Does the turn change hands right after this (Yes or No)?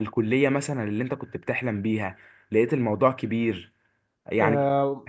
Yes